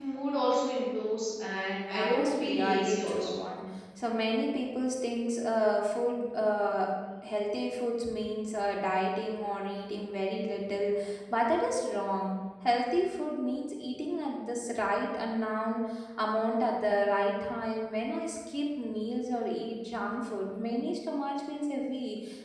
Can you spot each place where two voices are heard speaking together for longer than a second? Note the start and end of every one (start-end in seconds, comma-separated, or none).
1.9-3.4